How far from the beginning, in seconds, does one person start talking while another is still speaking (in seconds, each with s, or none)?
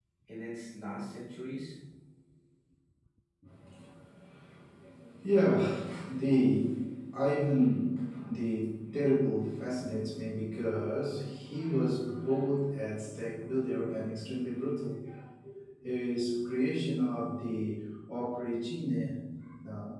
none